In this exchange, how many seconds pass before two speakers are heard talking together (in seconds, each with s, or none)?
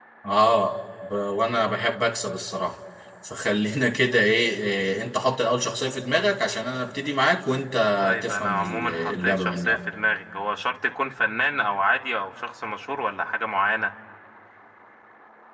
8.2 s